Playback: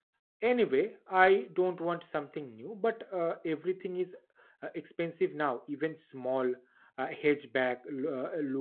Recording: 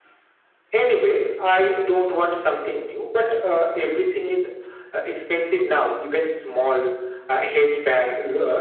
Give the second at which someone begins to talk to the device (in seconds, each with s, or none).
none